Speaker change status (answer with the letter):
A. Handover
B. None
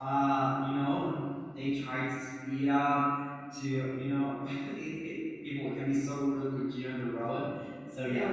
B